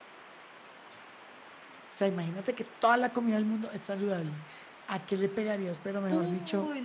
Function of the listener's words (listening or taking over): taking over